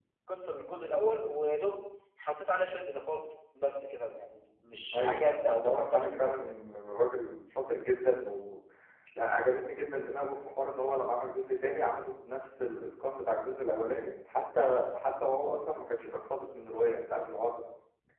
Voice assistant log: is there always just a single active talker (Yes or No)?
No